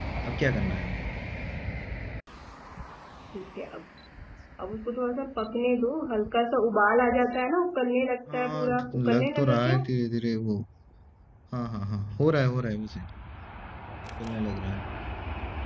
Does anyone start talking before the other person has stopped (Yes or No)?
Yes